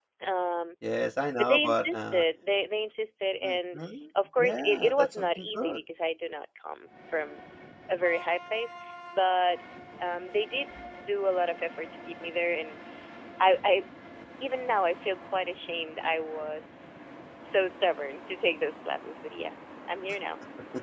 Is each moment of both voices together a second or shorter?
No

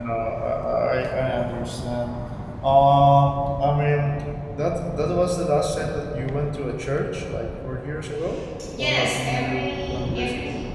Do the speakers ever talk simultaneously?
Yes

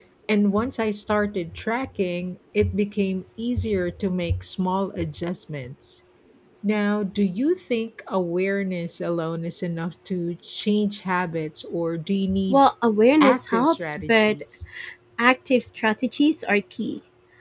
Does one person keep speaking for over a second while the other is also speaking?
Yes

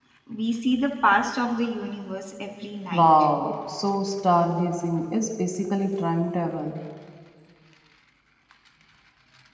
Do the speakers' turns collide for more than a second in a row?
No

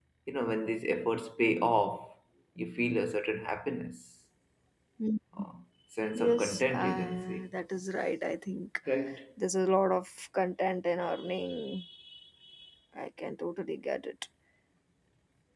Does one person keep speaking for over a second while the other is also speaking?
Yes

